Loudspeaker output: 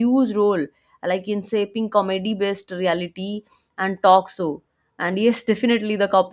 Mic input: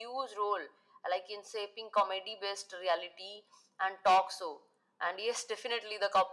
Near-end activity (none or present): none